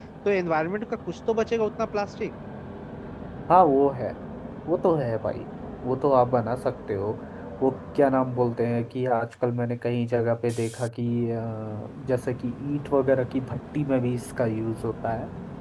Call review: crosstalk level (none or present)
none